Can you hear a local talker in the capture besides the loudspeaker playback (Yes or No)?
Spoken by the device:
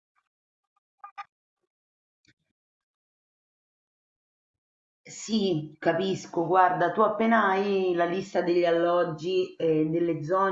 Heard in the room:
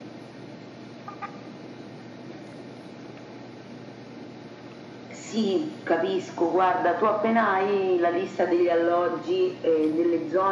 No